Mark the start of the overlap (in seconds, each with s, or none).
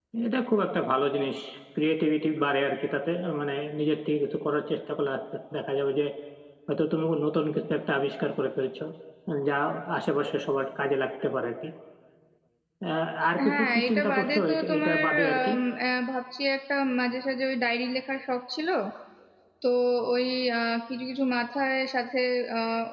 13.4 s